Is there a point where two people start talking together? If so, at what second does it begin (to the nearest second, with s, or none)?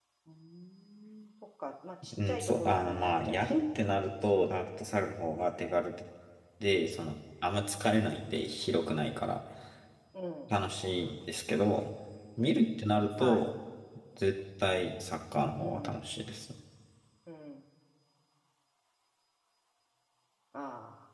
2 s